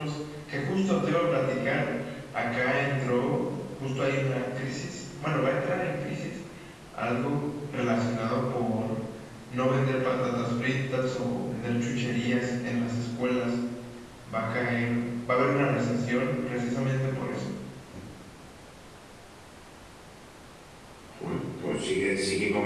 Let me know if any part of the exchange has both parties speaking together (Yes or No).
No